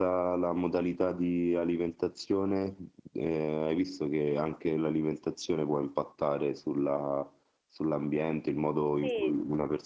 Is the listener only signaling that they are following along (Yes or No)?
Yes